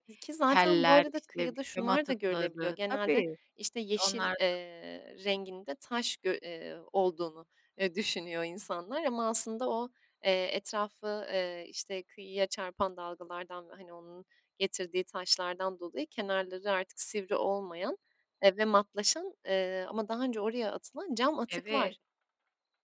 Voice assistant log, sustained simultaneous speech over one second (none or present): present